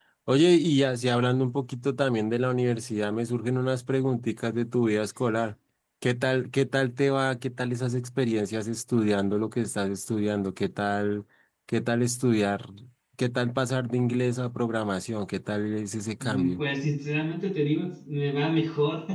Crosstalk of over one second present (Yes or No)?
No